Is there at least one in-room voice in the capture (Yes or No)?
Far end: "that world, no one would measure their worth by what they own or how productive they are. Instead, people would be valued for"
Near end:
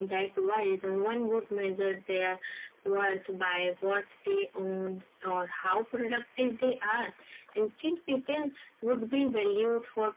No